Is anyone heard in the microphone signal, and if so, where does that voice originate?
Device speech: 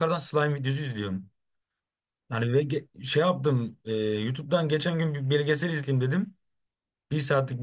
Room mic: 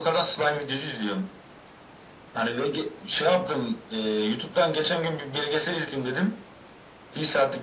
echo only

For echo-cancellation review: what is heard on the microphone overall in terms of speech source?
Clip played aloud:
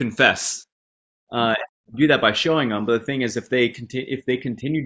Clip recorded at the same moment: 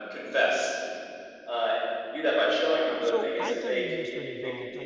both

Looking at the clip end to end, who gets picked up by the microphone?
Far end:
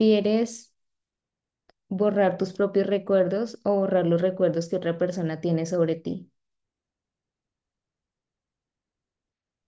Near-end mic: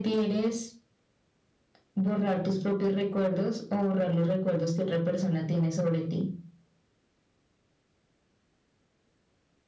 echo only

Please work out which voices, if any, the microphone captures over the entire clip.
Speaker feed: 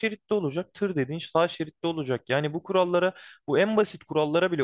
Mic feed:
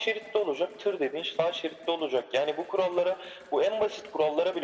echo only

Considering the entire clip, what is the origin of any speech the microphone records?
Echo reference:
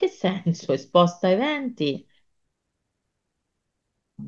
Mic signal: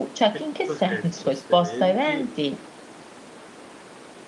both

